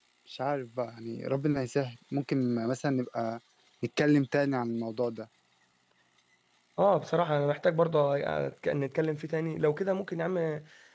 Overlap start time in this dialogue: none

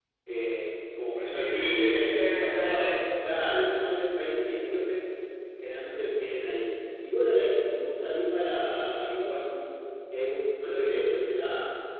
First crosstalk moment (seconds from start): 1.2 s

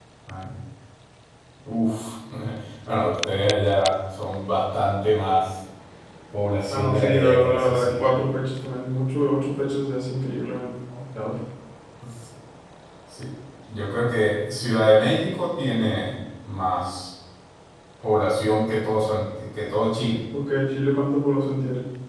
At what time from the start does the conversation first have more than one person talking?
6.7 s

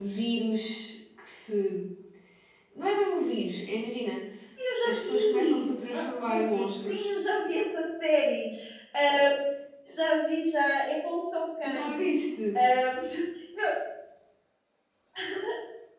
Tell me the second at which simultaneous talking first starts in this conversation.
4.8 s

